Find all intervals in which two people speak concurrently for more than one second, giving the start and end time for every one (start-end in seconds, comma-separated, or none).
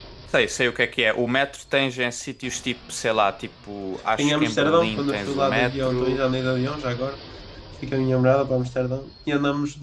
4.2-6.2